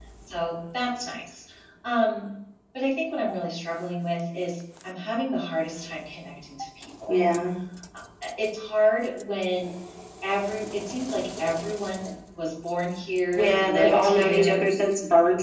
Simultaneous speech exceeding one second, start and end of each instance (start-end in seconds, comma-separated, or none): 13.3-14.6